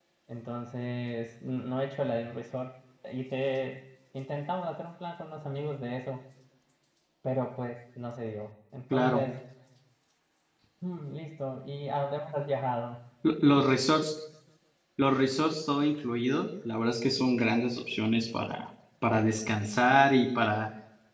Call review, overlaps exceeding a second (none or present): none